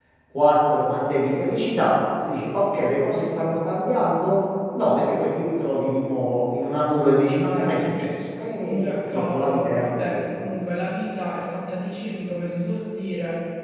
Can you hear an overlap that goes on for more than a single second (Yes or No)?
Yes